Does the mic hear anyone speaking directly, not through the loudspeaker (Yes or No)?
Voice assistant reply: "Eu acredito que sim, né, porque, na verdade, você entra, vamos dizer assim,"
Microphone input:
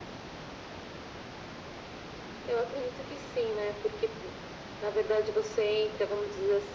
No